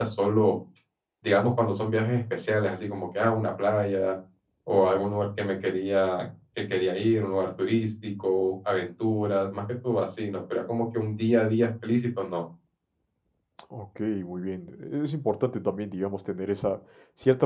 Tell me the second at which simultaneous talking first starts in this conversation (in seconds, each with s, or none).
none